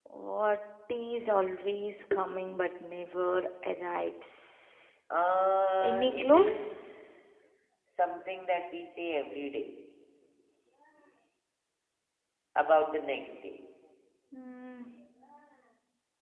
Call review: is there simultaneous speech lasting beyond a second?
Yes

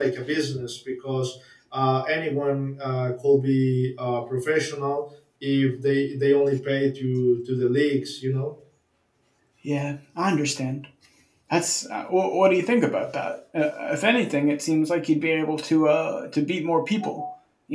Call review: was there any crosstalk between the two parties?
No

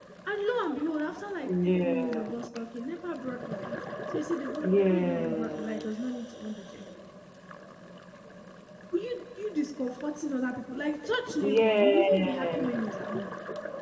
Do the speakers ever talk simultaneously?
Yes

